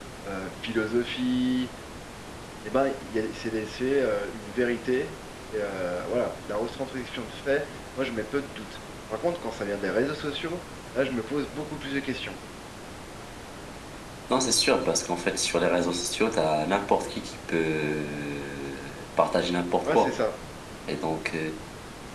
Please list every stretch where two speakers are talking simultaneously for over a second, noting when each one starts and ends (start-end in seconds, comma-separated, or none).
none